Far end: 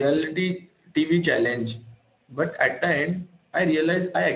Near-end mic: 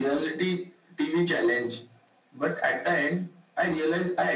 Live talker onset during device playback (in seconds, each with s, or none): none